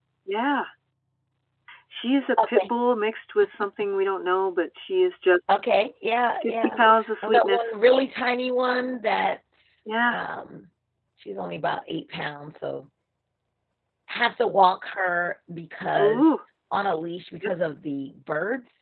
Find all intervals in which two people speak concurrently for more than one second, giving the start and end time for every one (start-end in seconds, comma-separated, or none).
none